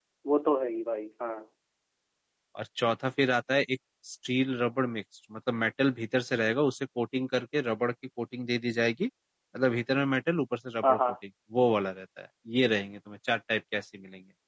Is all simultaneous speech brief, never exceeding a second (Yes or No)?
Yes